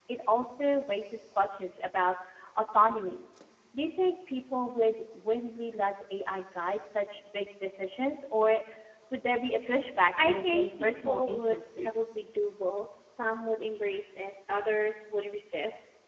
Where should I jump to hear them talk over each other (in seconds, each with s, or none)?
10.2 s